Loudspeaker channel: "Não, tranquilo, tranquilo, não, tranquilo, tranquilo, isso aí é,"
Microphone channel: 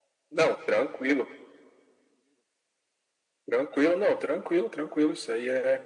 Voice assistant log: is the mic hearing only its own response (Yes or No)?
Yes